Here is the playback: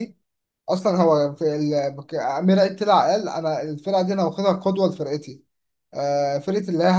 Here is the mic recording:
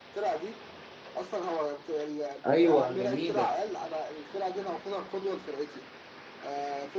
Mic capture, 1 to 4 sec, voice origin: both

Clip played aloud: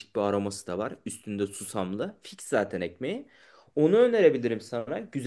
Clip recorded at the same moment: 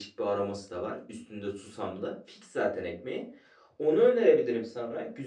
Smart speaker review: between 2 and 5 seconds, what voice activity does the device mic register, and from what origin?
echo only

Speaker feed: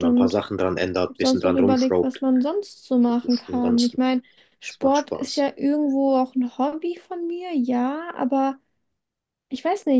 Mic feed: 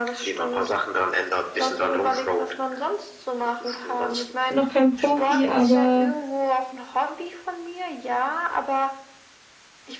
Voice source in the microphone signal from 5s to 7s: both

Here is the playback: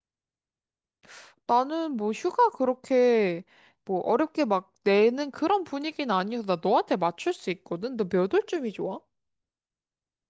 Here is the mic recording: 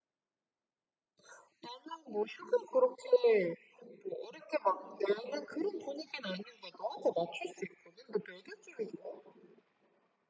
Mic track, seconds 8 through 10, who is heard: echo only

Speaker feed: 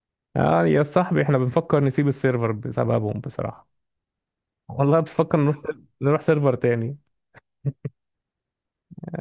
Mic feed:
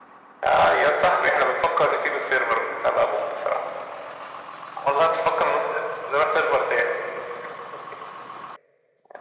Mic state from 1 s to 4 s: echo only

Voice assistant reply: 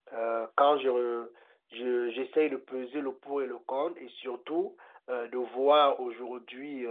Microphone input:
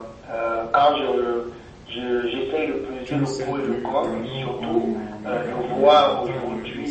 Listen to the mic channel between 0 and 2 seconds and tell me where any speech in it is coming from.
echo only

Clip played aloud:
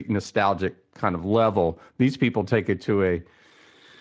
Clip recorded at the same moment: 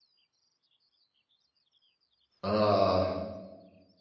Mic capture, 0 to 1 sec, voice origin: neither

